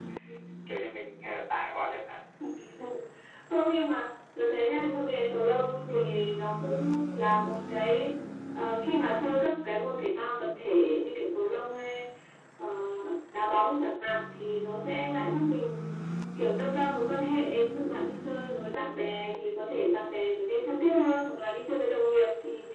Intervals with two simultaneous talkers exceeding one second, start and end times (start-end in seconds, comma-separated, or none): none